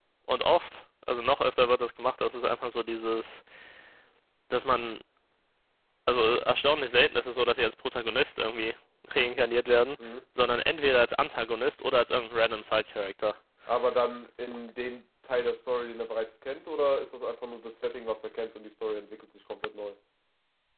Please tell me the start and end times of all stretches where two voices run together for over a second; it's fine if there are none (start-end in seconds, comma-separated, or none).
none